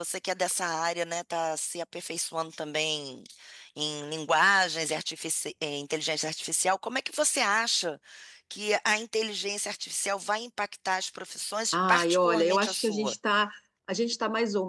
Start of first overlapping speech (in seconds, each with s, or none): 11.7 s